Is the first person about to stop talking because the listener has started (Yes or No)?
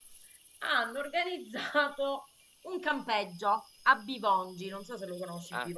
Yes